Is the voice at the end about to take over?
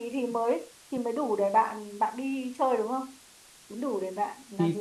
Yes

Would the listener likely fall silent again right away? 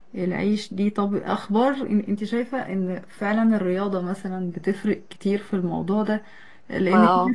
Yes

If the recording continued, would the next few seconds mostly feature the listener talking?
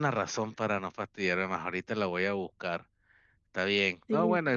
No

